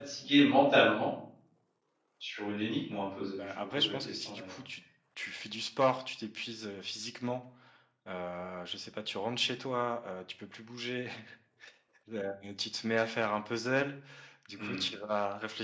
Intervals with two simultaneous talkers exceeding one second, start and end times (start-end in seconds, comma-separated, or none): 3.3-4.6